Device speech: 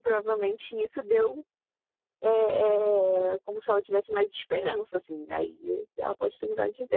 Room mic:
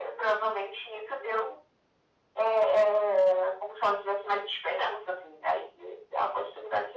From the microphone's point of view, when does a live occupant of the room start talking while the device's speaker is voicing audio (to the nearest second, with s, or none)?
none